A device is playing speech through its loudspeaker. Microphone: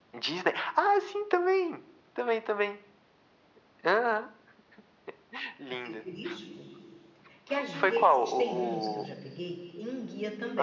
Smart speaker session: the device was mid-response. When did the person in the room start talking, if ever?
5.6 s

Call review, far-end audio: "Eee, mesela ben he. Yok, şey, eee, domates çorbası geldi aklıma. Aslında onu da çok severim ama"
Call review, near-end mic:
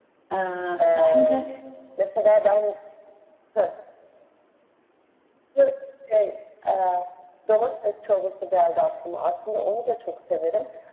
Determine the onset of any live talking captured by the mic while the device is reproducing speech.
0.3 s

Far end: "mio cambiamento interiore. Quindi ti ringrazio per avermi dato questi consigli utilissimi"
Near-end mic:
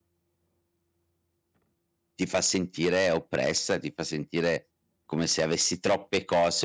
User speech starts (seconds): 2.1 s

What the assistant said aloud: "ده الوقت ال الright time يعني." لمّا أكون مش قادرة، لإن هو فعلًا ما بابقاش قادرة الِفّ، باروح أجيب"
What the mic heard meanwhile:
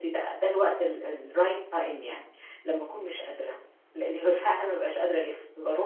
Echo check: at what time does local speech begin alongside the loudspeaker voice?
none

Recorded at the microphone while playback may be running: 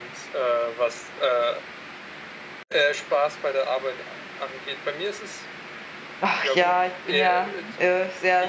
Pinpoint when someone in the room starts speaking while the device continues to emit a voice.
6.2 s

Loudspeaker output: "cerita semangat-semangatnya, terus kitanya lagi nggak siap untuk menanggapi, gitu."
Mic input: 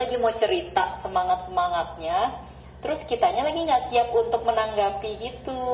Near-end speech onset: none

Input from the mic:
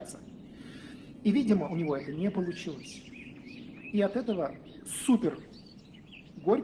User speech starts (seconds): none

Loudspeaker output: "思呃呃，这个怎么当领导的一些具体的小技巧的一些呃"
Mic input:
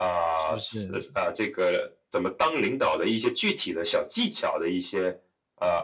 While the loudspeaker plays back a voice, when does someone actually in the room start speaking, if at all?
0.3 s

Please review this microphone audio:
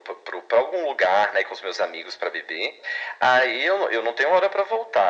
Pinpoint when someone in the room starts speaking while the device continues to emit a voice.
none

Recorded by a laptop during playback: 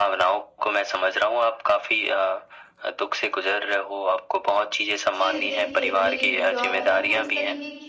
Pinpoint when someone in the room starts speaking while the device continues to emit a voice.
5.2 s

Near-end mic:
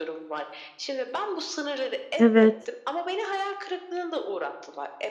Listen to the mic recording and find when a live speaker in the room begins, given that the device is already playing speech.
2.2 s

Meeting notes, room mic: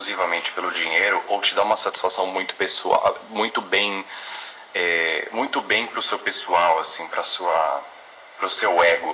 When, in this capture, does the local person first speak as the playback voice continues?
none

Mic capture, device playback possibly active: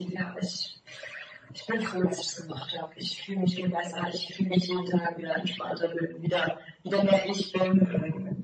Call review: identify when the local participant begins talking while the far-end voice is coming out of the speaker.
none

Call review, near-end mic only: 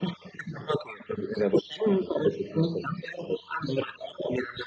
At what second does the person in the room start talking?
none

